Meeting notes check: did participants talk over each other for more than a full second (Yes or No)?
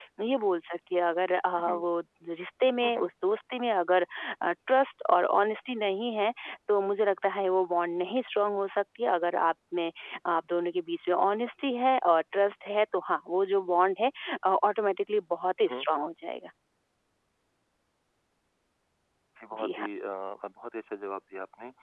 No